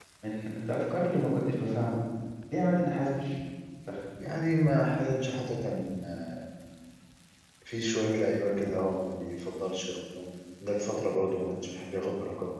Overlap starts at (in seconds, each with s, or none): none